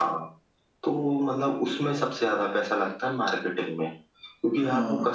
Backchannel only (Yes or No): Yes